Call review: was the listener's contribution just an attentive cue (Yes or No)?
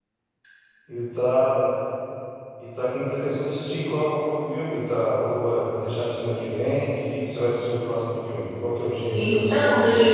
No